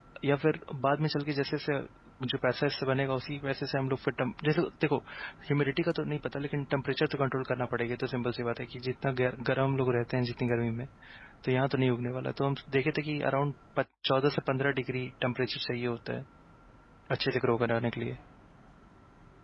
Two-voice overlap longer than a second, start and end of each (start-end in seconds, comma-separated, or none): none